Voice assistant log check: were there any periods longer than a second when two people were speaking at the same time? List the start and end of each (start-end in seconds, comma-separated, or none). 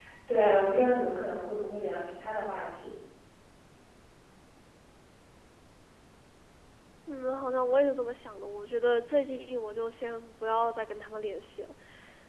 none